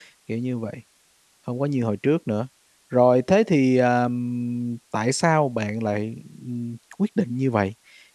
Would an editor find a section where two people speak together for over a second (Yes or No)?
No